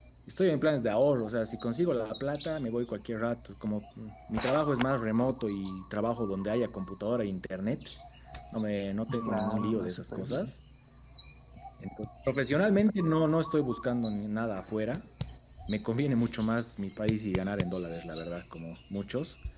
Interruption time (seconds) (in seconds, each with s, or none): 9.3 s